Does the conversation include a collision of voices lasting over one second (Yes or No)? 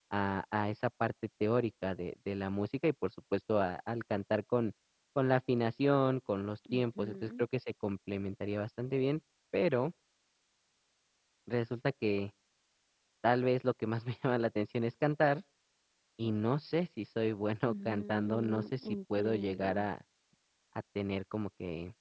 Yes